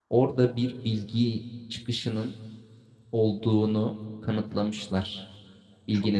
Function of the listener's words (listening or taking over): listening